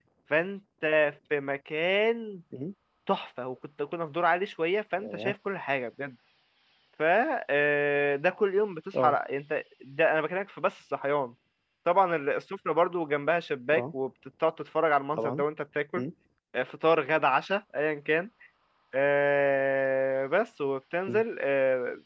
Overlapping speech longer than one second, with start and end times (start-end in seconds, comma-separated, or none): none